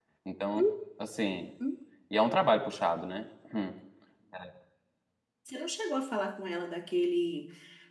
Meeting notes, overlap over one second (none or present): none